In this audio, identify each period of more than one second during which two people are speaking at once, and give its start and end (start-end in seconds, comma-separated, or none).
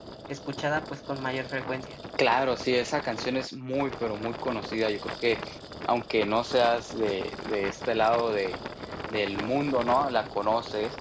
none